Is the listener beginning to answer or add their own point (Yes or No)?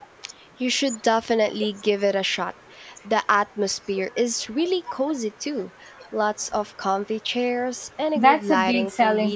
Yes